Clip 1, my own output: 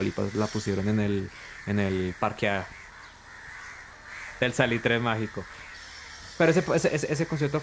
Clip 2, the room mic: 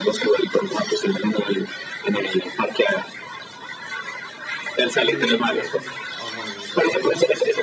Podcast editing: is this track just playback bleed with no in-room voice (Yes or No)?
No